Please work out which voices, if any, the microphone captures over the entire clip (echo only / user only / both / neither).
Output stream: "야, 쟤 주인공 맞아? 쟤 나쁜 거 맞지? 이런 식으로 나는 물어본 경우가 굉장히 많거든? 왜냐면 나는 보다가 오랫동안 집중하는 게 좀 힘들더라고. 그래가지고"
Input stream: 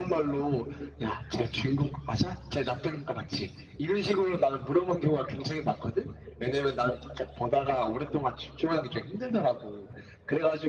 echo only